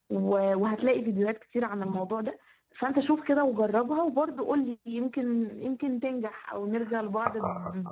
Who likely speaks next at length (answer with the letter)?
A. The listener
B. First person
A